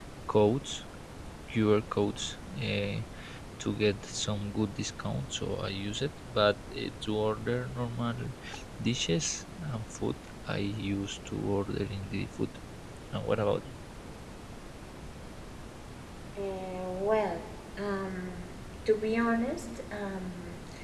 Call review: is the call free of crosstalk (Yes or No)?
Yes